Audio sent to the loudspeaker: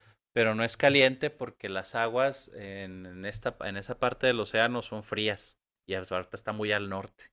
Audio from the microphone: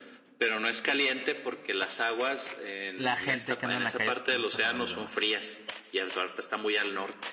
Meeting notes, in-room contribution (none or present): present